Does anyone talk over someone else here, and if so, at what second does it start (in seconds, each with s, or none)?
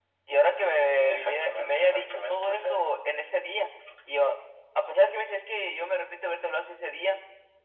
1.0 s